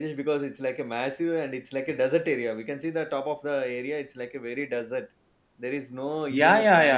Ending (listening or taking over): taking over